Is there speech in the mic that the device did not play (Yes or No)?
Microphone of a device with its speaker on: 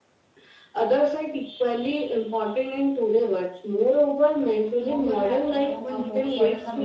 Yes